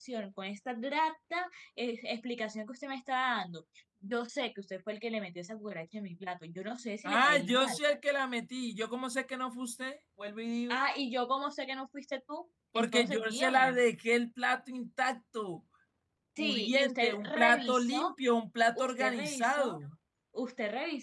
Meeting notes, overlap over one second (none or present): present